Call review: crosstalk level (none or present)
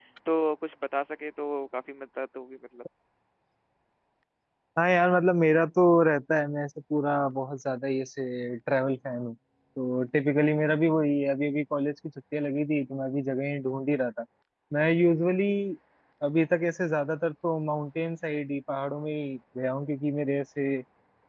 none